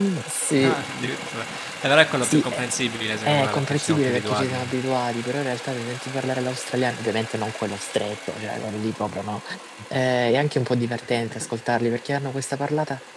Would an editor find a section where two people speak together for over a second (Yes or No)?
Yes